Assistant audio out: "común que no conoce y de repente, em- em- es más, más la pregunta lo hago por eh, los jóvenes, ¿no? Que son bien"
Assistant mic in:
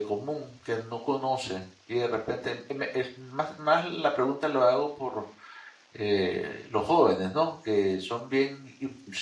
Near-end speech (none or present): none